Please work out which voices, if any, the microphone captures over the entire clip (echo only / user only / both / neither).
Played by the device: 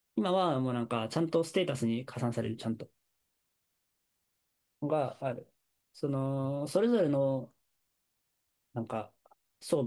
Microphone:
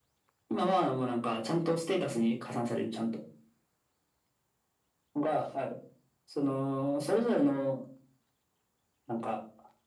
echo only